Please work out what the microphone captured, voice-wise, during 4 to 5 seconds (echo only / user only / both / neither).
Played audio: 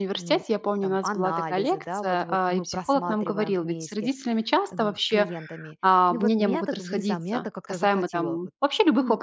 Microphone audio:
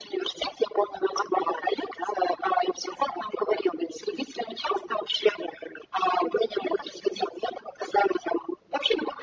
echo only